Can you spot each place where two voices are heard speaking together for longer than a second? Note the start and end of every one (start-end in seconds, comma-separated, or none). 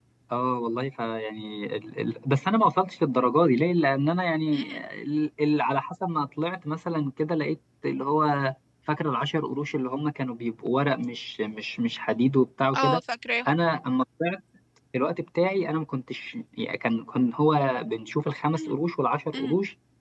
none